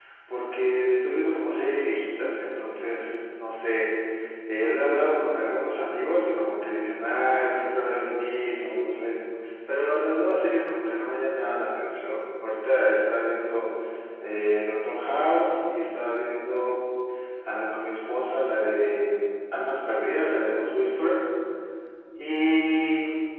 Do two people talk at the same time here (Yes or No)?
No